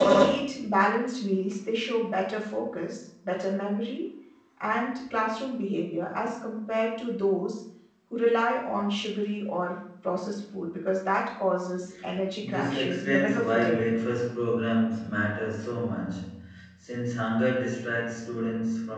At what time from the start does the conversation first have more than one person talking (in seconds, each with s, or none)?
12.4 s